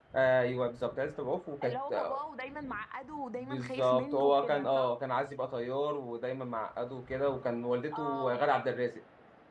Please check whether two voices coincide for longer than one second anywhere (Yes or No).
Yes